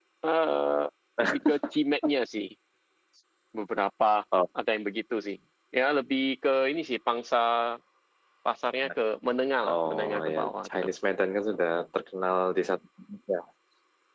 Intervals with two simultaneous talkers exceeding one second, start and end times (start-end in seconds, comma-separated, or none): 9.6-10.8